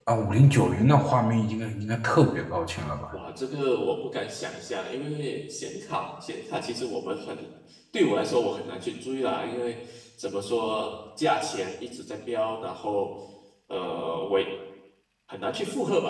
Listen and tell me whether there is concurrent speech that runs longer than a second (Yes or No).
No